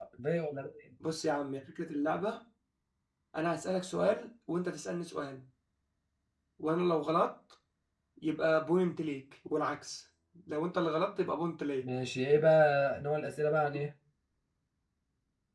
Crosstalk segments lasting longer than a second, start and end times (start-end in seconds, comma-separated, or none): none